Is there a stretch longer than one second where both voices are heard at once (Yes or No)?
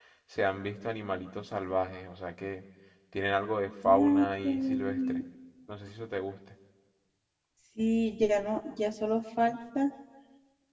Yes